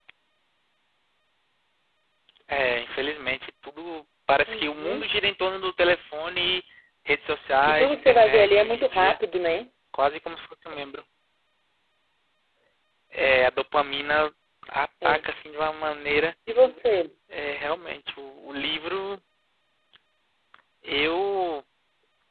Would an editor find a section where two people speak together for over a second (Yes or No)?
Yes